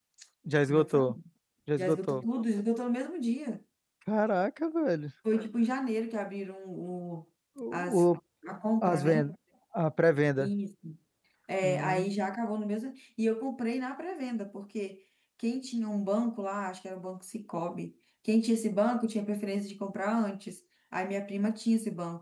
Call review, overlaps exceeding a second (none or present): none